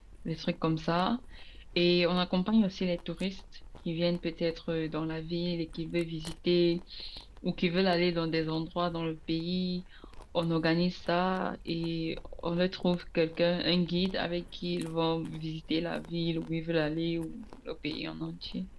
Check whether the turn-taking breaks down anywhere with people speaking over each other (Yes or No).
No